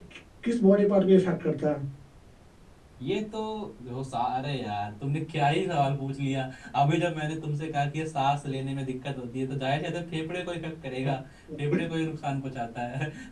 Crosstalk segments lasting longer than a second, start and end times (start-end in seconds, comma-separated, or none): none